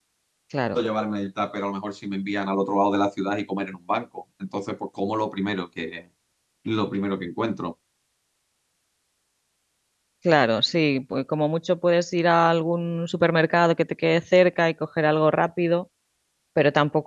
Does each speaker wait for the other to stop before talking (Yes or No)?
Yes